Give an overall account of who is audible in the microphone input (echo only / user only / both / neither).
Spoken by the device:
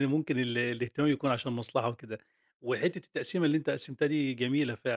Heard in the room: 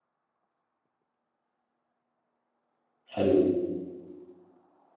user only